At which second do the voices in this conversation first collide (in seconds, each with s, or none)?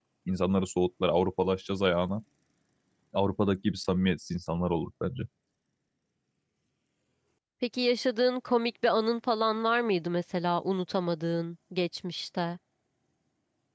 none